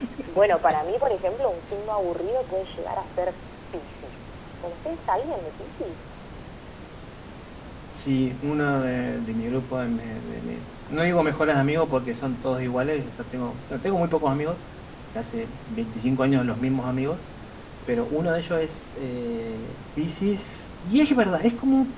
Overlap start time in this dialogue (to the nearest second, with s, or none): none